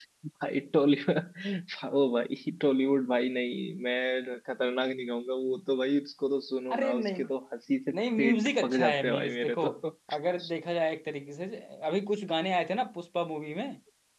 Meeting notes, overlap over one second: present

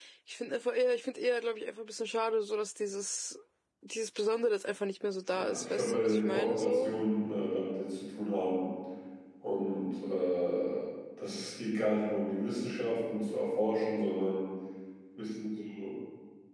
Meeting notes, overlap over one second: present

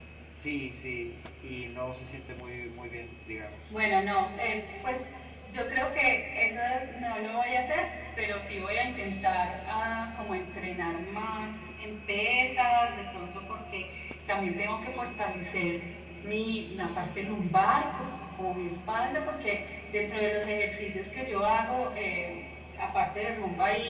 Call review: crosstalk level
none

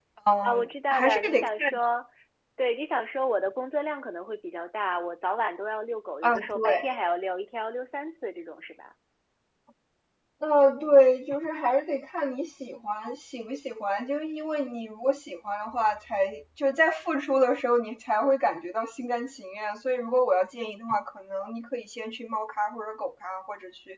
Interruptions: present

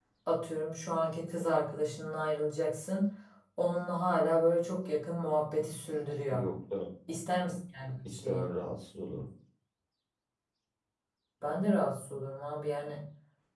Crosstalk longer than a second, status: none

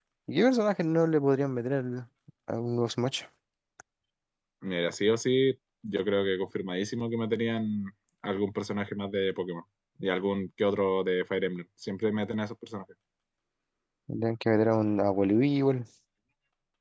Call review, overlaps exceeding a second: none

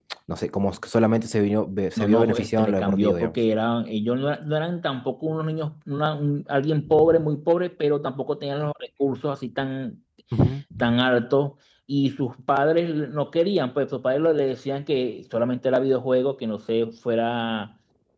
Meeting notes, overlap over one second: present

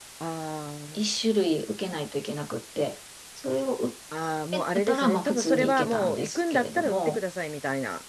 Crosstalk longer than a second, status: present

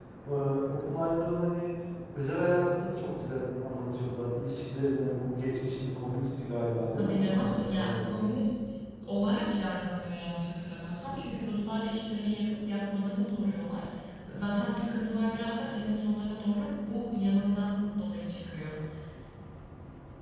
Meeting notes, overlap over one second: present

